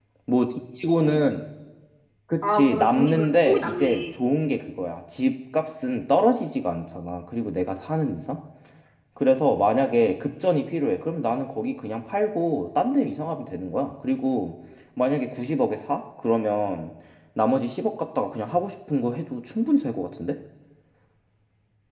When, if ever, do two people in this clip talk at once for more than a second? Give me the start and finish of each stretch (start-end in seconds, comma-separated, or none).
2.4-4.0